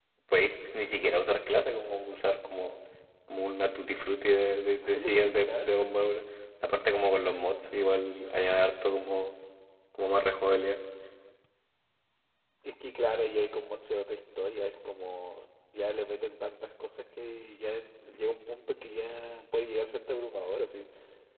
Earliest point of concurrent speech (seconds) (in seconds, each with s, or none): 4.8 s